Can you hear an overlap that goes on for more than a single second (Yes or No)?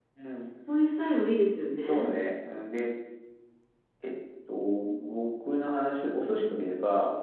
No